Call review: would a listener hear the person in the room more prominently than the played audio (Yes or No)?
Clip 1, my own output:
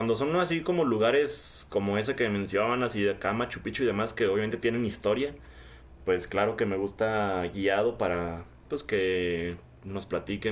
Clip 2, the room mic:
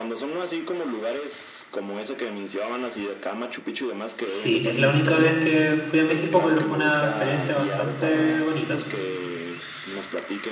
Yes